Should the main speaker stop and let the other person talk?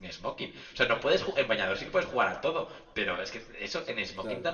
No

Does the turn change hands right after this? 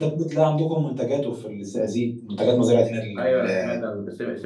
Yes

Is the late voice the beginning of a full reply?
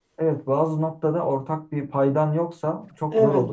No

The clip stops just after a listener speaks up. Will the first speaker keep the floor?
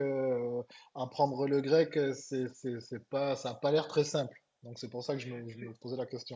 No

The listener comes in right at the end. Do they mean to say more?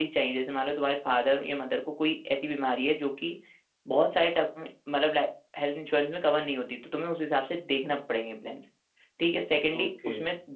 No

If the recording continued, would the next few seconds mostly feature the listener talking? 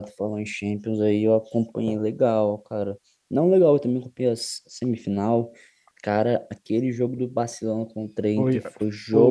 Yes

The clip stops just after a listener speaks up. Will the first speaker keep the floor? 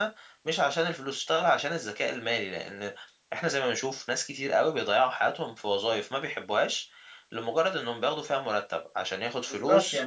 No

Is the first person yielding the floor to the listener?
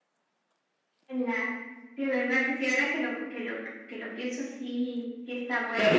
Yes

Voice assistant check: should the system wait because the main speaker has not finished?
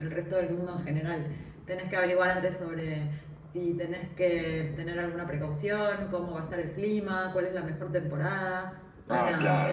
No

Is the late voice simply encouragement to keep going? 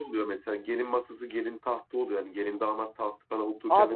No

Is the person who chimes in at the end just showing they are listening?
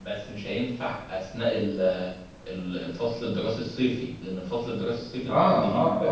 No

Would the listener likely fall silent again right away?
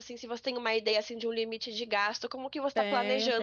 No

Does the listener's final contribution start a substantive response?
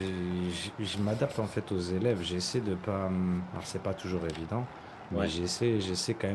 No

